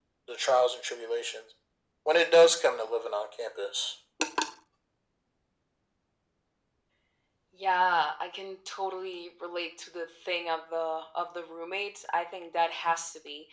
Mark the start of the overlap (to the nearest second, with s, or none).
none